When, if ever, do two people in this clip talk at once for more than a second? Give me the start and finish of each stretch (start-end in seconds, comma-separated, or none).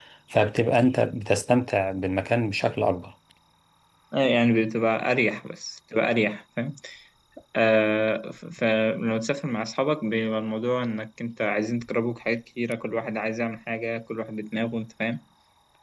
none